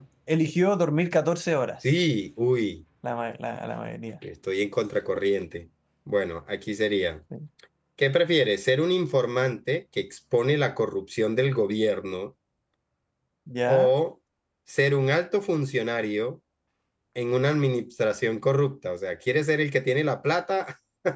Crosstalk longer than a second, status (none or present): none